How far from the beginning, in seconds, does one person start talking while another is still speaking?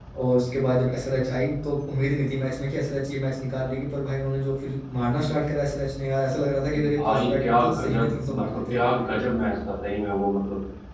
6.7 s

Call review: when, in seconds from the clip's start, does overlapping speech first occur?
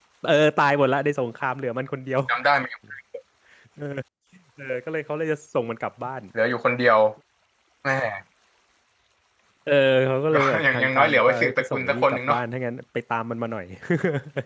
10.3 s

